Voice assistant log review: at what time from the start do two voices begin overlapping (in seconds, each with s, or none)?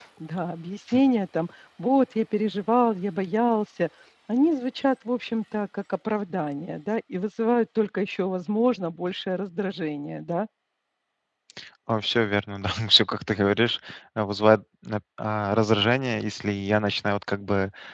none